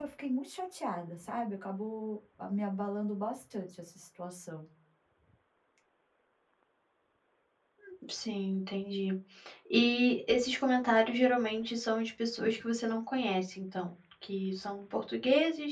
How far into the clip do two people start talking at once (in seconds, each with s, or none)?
none